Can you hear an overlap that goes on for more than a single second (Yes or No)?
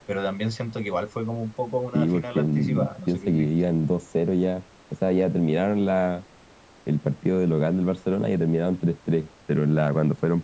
Yes